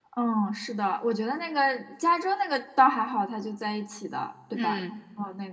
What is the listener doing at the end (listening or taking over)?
listening